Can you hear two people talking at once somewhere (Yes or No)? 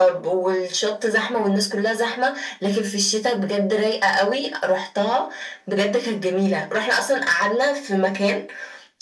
No